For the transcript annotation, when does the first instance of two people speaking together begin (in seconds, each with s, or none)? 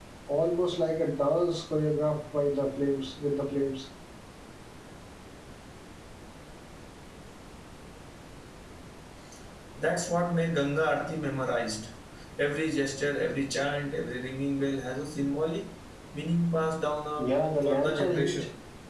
17.2 s